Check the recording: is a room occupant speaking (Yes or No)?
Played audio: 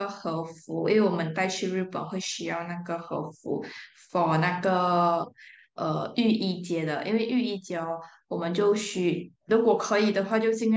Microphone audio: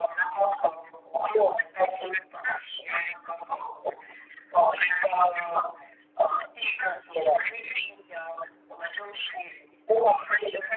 No